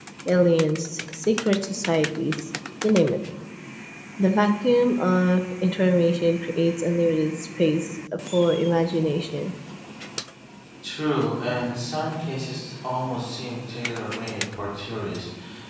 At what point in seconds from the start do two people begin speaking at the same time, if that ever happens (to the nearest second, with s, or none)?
none